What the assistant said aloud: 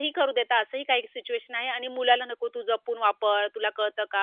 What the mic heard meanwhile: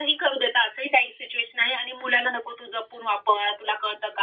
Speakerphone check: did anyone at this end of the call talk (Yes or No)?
No